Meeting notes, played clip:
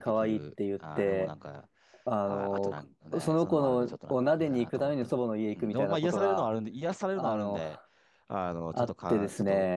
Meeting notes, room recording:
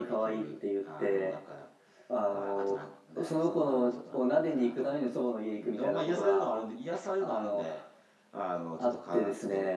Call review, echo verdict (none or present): present